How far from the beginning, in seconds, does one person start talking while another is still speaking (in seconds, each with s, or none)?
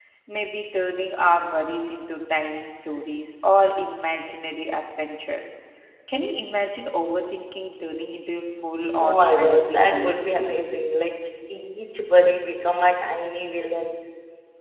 9.0 s